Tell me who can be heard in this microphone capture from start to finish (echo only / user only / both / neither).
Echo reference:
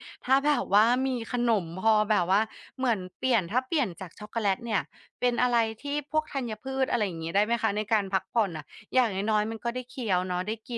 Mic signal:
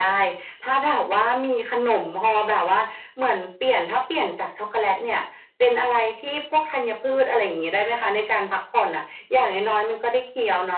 echo only